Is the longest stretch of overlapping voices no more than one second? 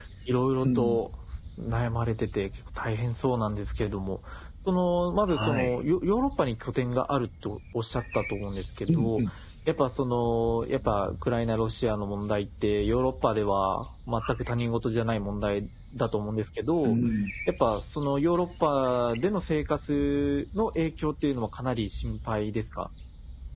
Yes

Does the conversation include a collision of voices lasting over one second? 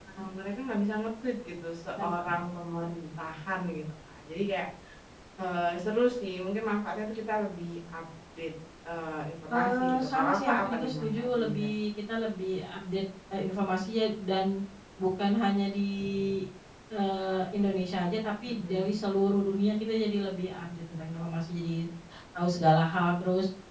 Yes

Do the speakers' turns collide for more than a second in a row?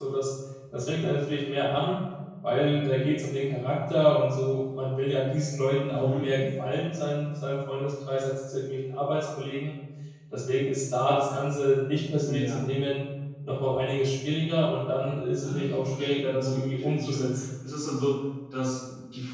Yes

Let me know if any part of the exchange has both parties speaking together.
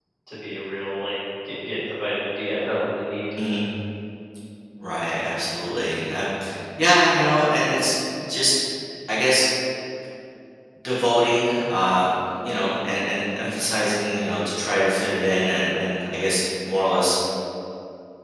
No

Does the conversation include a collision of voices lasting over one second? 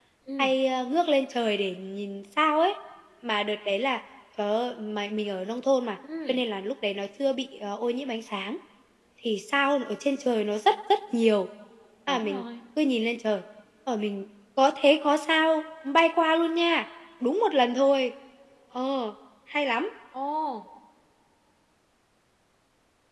No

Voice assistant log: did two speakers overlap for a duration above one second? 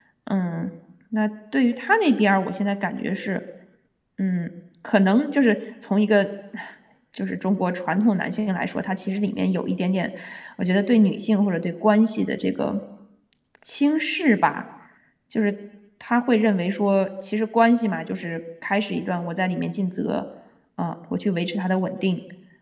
No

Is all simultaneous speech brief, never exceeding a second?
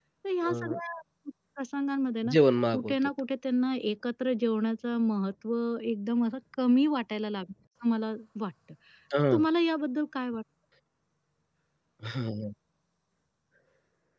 Yes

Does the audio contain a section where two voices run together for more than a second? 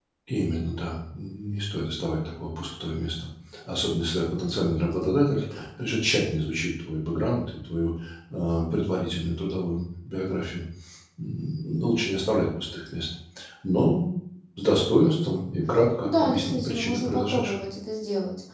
Yes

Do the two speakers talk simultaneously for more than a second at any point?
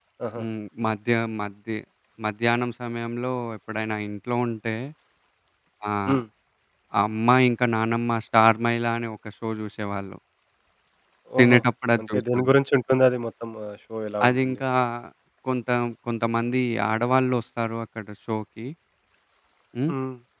No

